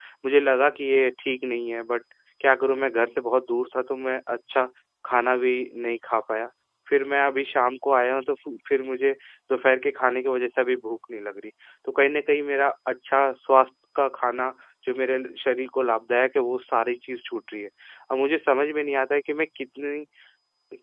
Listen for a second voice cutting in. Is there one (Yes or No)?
No